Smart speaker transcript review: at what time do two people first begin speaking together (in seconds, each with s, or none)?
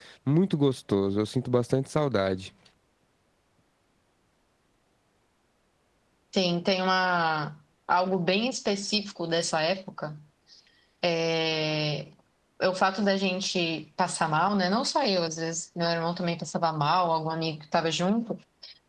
none